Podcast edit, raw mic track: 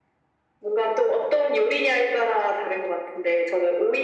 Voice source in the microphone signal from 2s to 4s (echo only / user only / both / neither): echo only